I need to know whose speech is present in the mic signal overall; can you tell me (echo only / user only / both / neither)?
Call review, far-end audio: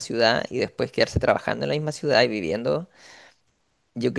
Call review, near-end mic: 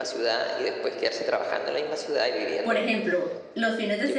both